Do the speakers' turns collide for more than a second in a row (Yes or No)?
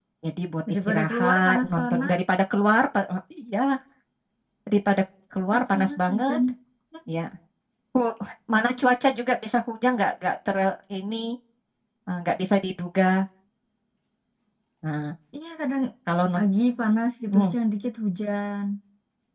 Yes